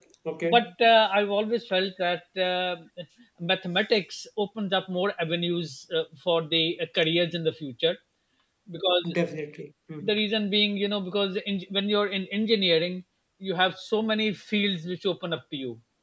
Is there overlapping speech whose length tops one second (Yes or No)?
No